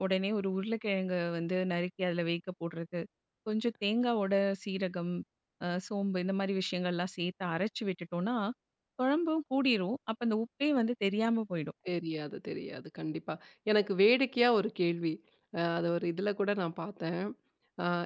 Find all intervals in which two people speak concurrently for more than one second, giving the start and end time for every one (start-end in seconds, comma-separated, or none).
none